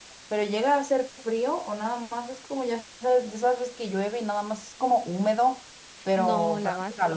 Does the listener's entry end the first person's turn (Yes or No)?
Yes